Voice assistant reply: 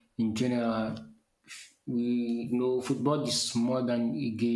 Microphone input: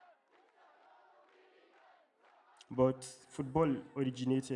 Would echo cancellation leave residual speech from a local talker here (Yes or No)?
Yes